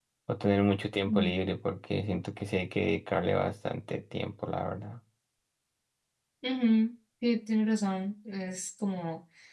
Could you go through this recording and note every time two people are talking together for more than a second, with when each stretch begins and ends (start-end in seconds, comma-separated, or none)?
none